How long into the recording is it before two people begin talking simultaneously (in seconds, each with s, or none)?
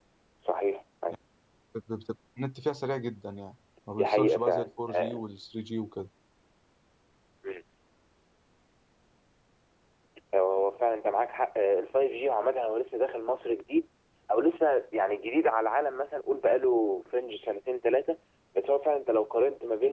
3.9 s